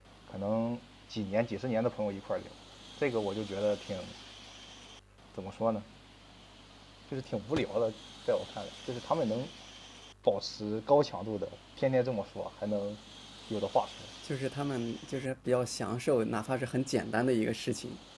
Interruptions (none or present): none